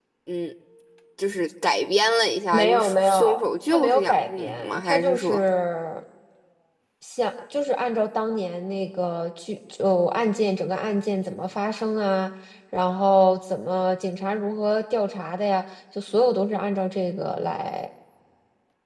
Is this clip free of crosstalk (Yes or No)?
No